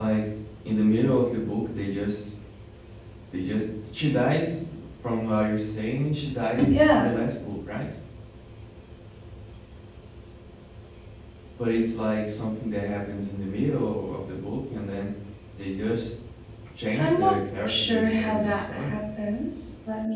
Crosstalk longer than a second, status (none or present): present